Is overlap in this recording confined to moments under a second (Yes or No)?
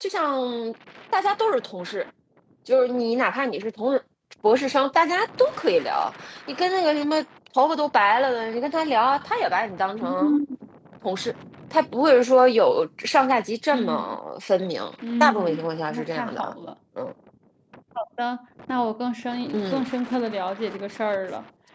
No